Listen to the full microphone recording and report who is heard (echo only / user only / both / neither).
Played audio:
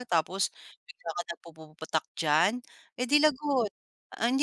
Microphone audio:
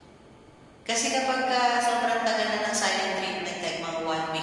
user only